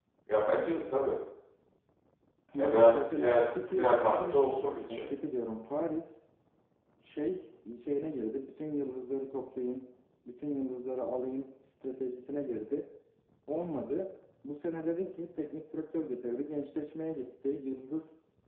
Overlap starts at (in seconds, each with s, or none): 2.6 s